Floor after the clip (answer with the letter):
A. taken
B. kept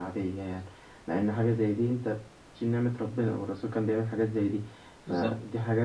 B